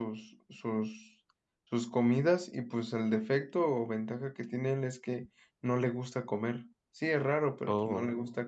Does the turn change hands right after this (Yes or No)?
No